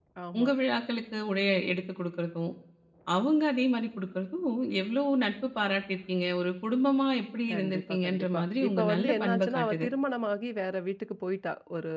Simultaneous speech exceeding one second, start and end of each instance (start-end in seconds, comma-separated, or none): 7.5-9.9